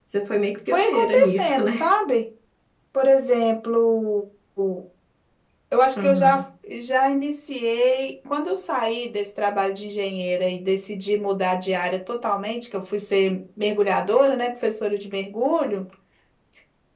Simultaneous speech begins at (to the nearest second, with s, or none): 1 s